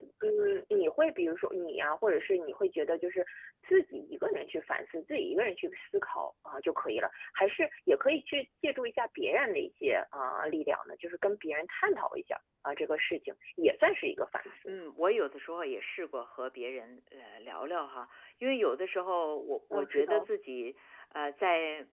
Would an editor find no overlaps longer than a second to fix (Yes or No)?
Yes